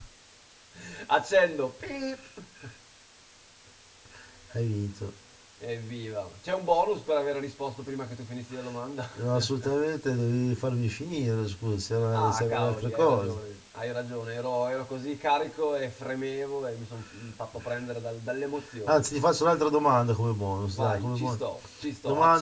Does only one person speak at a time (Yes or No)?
No